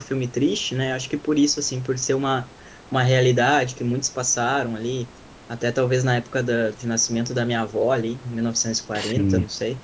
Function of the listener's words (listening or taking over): listening